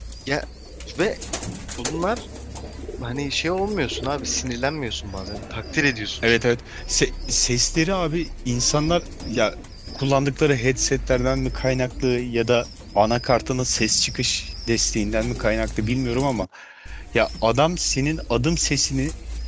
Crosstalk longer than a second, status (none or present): none